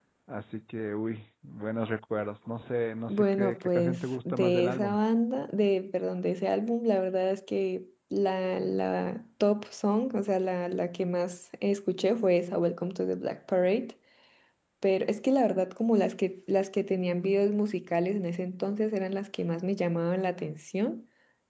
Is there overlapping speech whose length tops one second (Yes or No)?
Yes